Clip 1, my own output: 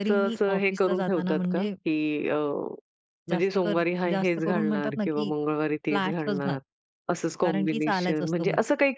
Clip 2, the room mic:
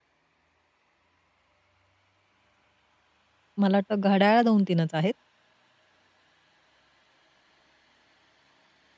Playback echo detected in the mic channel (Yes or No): No